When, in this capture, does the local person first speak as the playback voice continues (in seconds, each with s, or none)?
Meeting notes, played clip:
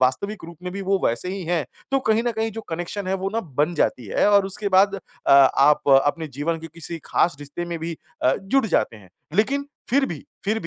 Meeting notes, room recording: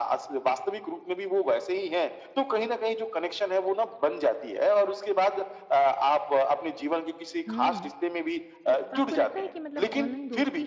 7.5 s